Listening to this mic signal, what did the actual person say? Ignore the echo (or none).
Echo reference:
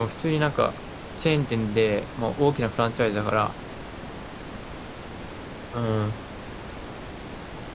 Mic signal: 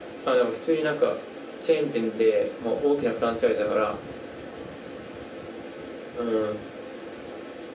none